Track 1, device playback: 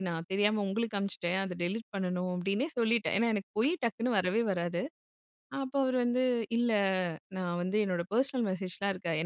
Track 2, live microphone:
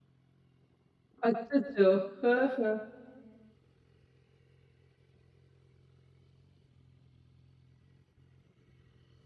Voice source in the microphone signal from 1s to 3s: user only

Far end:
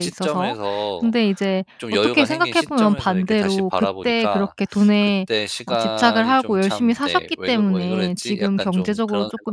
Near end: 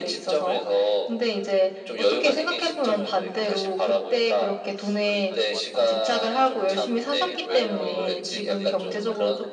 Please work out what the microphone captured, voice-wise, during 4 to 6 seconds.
both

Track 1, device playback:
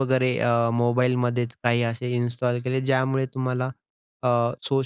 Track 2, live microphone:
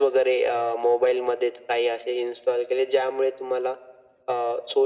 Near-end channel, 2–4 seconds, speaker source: echo only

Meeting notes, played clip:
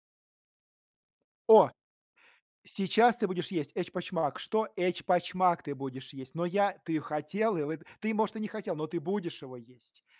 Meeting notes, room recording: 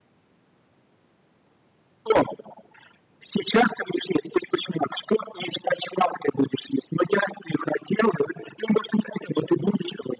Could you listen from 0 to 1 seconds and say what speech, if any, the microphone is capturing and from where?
neither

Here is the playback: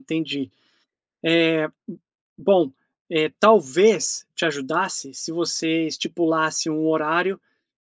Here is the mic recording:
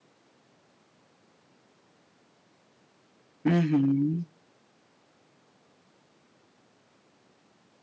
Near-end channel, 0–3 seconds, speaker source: neither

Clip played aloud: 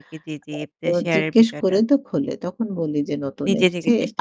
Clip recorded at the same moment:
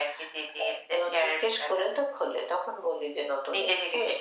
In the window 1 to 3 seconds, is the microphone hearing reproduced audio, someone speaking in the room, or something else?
echo only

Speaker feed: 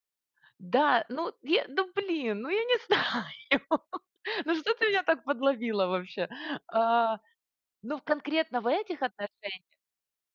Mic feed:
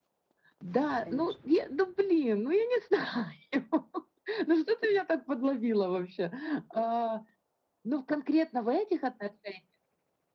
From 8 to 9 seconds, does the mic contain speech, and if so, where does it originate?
echo only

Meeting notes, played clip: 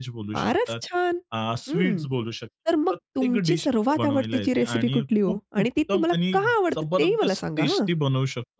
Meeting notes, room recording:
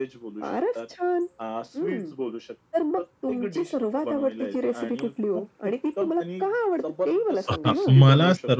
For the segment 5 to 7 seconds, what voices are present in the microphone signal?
echo only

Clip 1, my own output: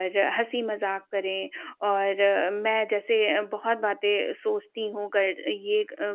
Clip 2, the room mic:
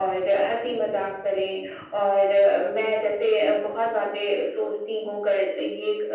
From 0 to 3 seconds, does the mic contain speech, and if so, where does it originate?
echo only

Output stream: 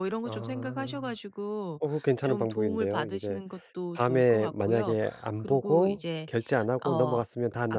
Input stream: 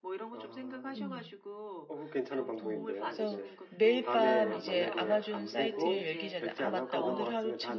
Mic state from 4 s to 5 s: both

